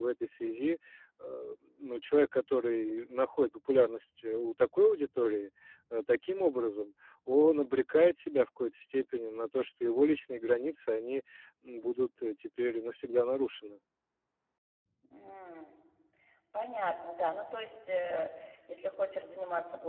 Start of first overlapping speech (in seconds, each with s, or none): none